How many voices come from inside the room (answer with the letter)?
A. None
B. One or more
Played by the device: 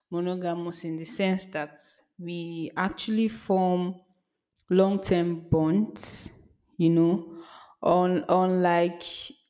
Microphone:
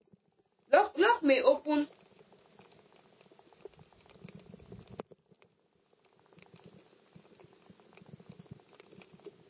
B